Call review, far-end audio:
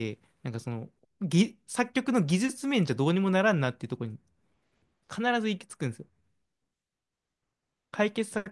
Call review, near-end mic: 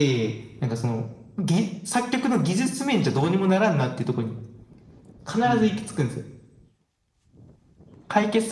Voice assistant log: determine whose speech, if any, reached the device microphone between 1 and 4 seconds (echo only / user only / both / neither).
echo only